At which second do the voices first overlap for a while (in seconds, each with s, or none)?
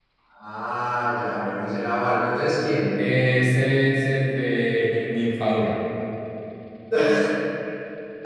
none